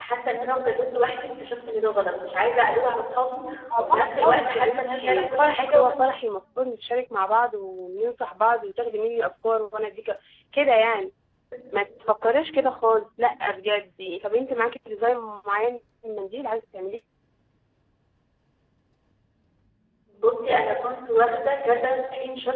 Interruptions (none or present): present